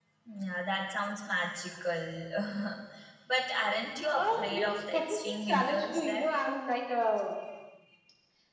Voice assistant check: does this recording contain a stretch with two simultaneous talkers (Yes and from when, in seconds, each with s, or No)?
Yes, from 4.1 s